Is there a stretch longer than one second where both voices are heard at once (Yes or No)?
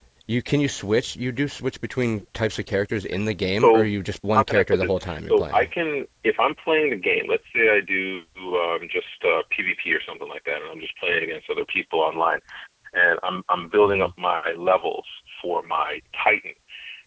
Yes